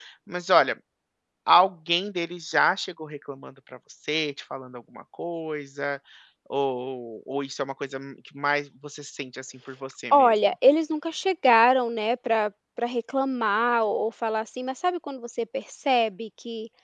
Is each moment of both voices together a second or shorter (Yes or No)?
Yes